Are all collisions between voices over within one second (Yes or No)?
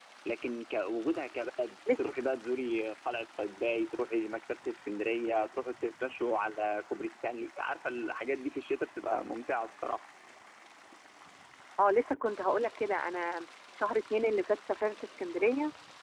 Yes